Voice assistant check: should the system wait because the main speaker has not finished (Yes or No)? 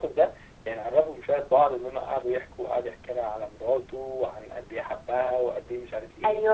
No